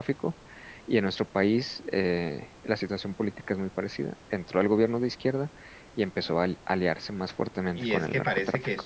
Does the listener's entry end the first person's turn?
Yes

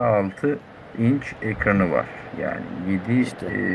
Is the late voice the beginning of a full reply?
No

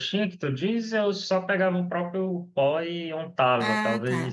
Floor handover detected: No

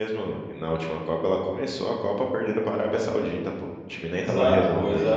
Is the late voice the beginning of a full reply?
Yes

